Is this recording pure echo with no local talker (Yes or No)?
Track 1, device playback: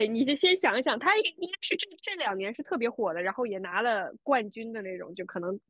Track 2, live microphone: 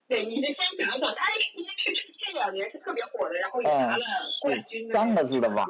No